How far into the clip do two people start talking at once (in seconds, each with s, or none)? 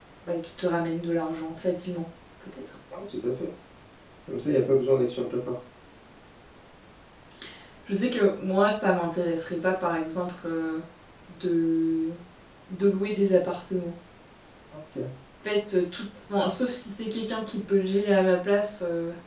none